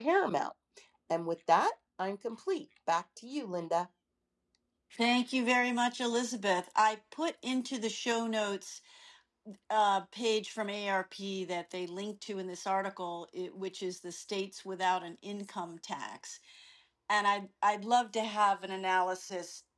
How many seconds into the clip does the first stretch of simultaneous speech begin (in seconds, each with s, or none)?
none